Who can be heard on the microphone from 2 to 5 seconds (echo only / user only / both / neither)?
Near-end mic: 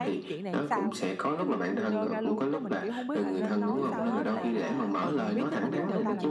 both